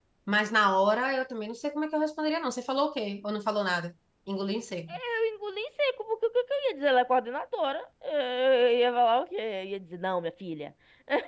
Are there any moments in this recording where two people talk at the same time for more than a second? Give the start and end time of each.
none

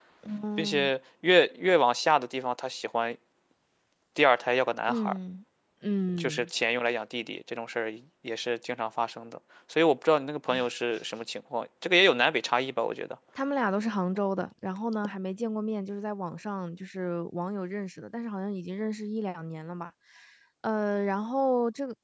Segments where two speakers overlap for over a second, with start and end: none

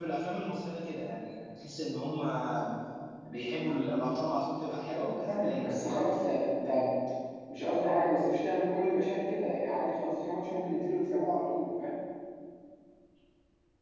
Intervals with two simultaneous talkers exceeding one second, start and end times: 4.9-6.1

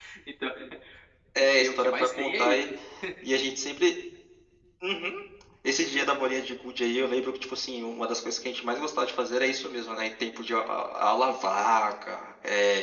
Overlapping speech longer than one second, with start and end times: 1.4-2.6

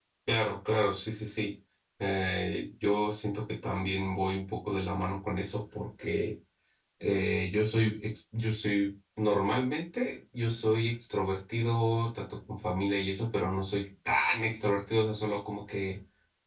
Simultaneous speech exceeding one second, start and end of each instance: none

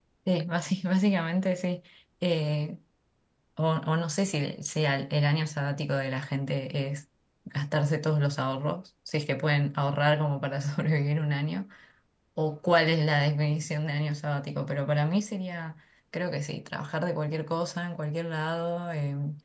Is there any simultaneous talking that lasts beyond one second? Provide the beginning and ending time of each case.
none

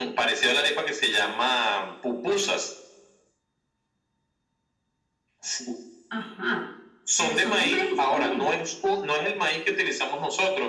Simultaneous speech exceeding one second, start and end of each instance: 7.2-8.5

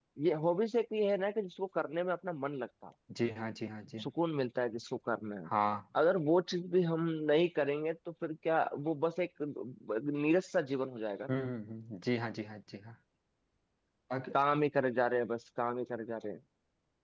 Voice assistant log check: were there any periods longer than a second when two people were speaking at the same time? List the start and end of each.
none

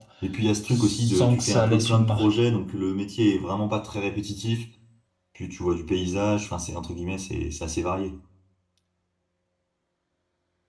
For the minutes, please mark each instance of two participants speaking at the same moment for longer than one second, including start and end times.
0.7-2.4

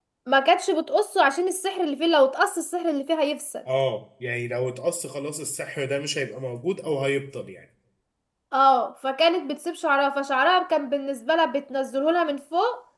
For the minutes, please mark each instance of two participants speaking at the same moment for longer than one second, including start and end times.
none

